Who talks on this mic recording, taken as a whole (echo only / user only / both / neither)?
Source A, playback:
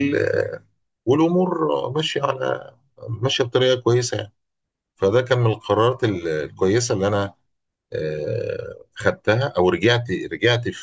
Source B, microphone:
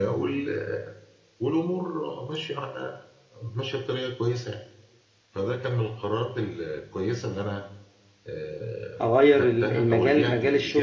both